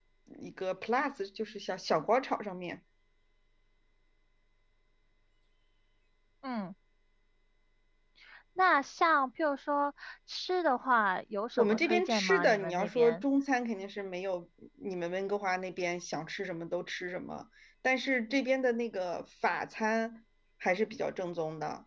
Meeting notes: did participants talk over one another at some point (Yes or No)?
Yes